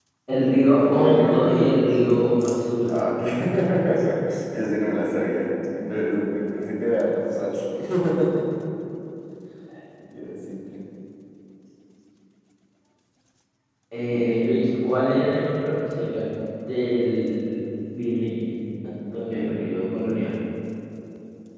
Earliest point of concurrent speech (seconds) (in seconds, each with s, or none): 0.8 s